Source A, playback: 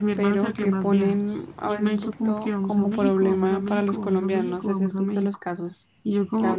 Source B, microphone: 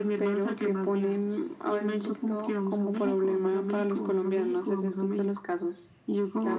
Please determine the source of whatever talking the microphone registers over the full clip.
echo only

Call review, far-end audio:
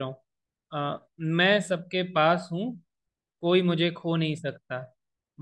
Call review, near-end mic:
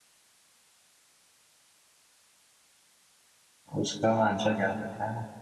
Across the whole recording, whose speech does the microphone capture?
user only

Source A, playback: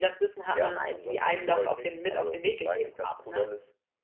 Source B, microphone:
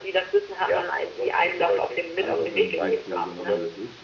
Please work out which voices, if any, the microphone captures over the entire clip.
both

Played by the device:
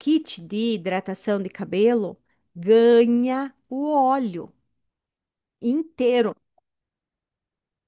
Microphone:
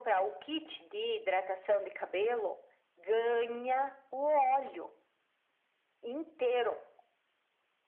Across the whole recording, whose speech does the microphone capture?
echo only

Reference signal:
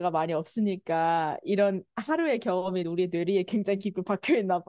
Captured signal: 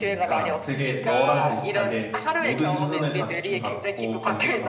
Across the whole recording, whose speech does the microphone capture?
both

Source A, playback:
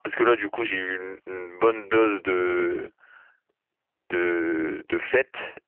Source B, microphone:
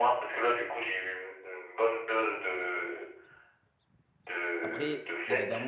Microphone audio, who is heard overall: both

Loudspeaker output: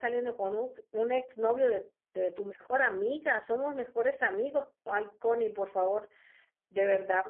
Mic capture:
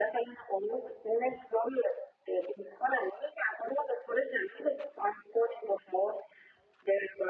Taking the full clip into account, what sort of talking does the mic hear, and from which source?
echo only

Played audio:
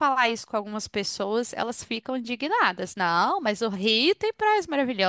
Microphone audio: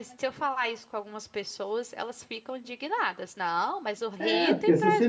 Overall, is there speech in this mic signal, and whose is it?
both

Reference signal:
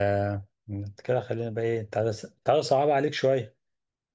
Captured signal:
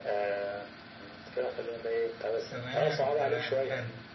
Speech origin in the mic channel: both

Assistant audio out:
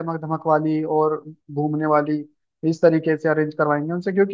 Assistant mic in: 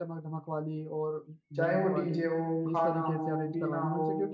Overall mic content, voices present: both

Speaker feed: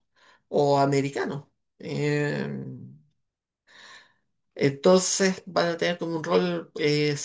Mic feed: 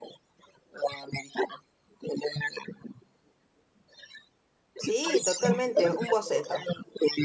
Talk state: both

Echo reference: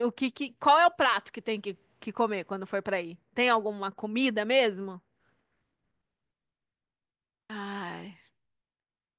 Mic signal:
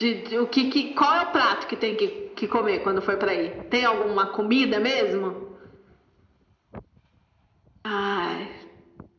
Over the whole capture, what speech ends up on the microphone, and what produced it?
echo only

